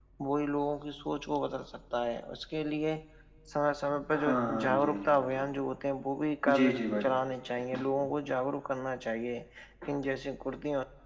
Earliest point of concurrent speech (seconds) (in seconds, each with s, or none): 4.2 s